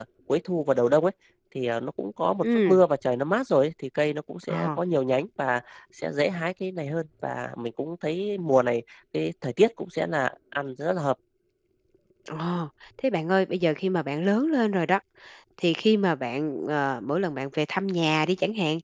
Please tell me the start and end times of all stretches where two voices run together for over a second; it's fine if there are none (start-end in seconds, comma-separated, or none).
none